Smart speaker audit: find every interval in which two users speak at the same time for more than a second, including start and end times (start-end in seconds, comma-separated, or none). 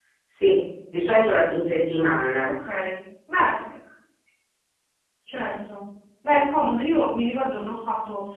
none